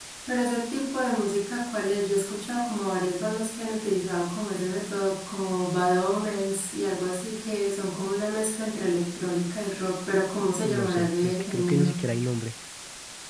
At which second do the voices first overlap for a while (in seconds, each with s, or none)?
10.6 s